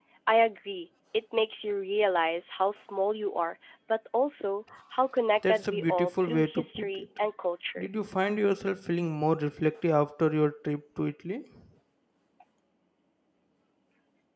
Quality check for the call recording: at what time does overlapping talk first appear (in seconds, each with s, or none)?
5.4 s